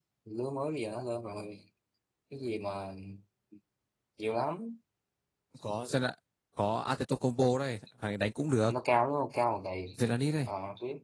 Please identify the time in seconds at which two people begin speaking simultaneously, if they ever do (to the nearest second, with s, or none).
none